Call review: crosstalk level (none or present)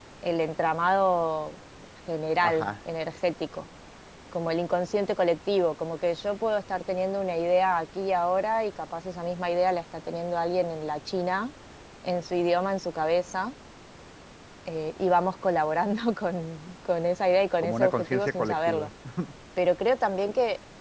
present